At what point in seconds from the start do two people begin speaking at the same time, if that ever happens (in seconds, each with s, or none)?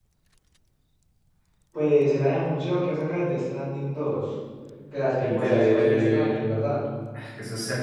5.2 s